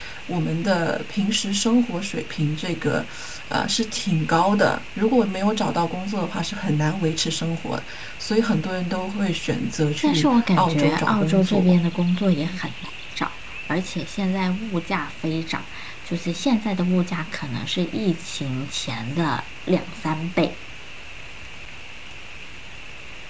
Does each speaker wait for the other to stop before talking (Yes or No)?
No